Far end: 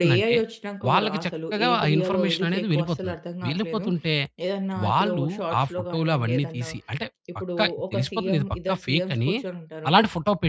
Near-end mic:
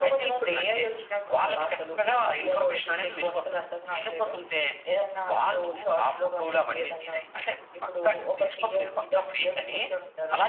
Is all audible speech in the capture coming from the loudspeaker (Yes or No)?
Yes